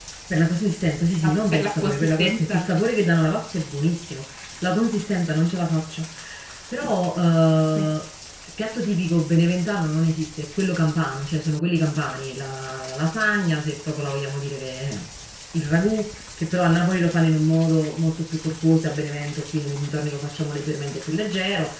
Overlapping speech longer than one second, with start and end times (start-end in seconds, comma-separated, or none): 1.2-2.6